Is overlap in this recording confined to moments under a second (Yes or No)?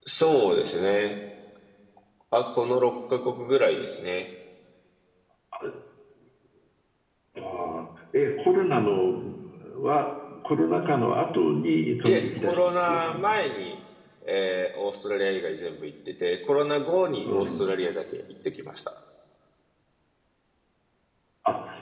No